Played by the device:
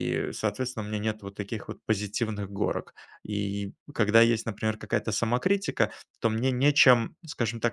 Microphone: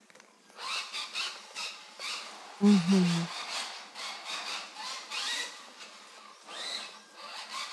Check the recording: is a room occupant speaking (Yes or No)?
Yes